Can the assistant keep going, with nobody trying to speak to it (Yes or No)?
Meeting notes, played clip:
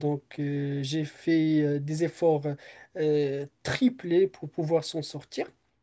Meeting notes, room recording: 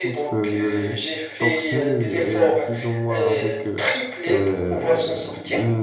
No